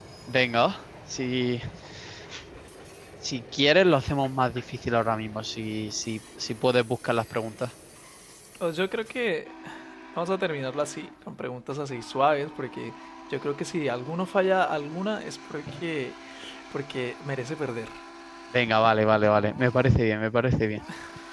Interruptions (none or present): none